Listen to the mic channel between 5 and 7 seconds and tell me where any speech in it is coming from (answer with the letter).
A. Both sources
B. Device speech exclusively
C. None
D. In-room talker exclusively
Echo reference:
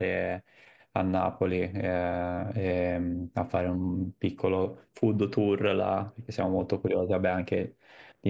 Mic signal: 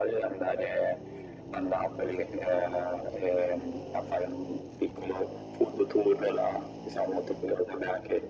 B